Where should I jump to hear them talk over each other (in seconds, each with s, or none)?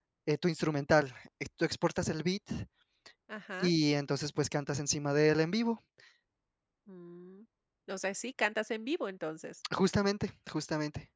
none